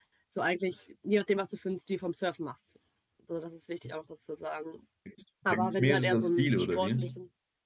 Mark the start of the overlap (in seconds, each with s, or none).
5.5 s